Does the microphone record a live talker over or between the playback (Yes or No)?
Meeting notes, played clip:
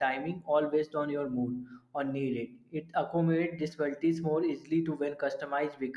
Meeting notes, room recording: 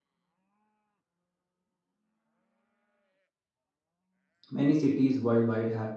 Yes